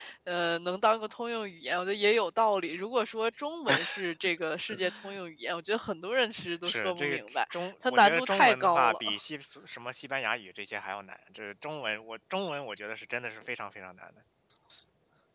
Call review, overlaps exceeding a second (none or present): present